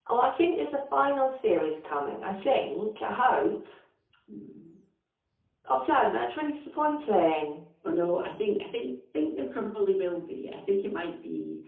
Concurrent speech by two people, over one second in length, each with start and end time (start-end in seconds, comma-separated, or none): none